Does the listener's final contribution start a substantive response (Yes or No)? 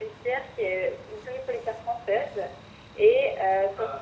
No